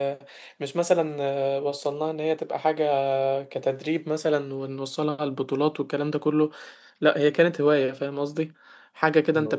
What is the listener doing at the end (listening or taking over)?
listening